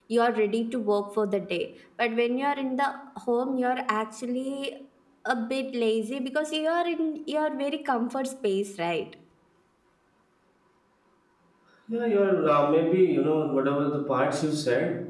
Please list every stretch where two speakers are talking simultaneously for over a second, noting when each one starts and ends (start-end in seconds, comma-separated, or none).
none